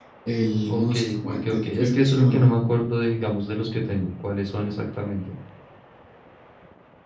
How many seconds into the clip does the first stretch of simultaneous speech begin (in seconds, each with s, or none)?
0.7 s